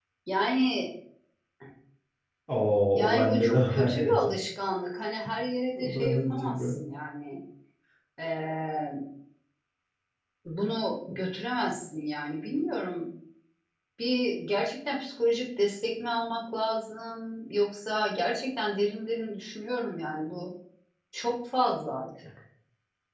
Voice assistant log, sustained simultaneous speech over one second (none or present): present